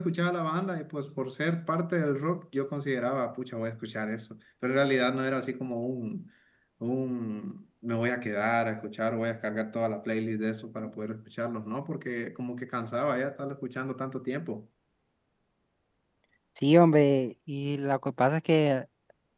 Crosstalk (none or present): none